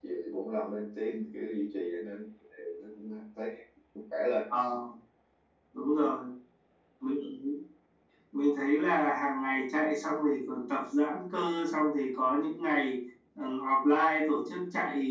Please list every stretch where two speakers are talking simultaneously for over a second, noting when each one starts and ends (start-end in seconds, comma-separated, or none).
none